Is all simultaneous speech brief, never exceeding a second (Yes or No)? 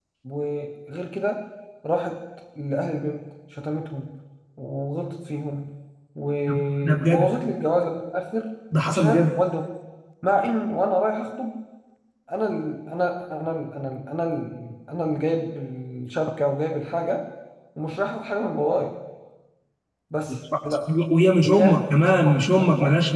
No